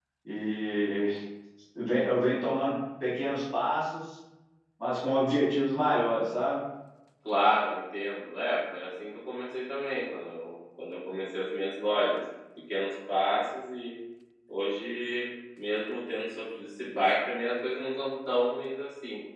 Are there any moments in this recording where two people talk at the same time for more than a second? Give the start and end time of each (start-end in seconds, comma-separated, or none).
none